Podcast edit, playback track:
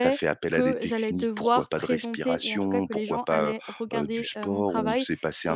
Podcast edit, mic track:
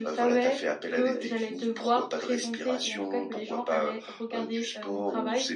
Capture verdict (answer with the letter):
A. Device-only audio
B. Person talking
A